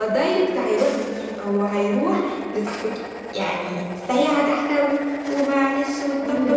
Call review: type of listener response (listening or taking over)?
taking over